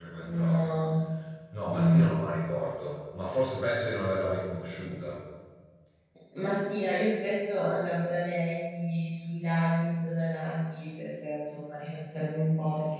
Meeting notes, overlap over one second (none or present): none